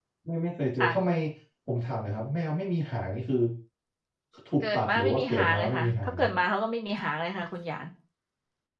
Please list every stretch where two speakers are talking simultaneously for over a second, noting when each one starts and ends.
4.6-6.3

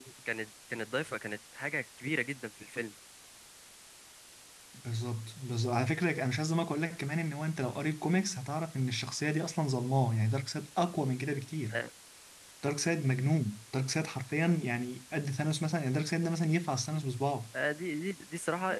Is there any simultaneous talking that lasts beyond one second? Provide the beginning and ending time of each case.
none

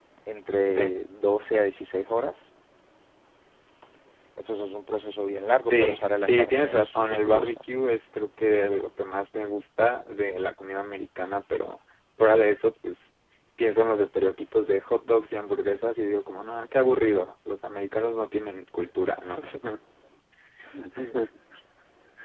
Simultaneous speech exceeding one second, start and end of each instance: 5.7-7.6

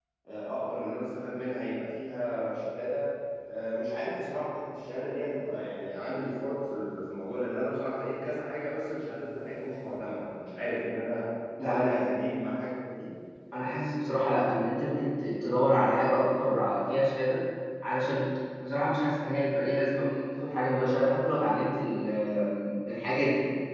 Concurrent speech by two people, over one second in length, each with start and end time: none

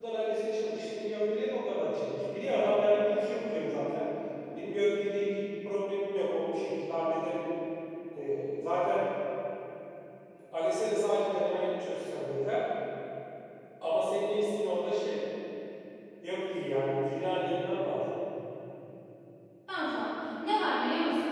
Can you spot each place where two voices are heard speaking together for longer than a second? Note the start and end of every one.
none

